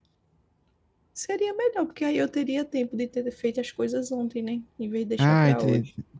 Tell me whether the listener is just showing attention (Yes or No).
No